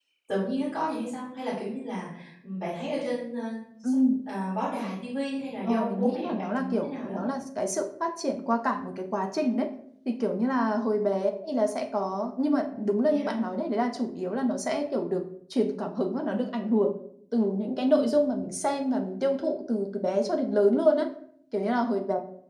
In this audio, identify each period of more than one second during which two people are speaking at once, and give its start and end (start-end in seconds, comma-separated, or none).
5.7-7.3